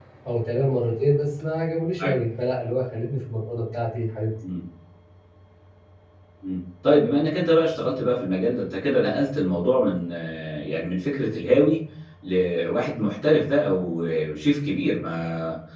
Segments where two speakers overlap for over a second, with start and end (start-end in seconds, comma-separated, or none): none